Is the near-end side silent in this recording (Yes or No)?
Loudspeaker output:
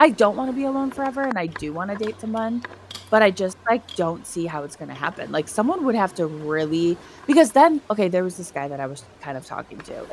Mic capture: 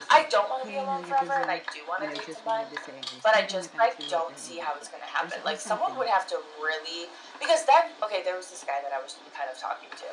No